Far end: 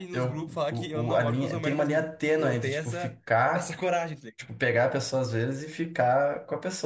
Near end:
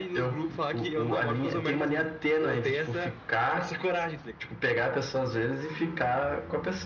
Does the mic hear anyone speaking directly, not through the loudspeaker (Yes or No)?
No